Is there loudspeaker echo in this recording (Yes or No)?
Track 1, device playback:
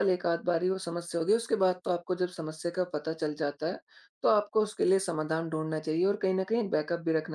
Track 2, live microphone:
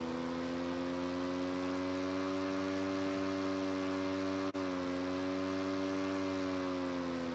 No